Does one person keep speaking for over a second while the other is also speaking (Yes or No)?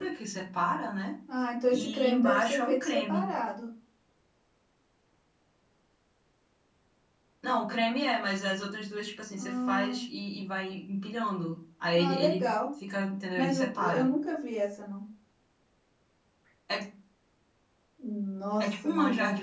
Yes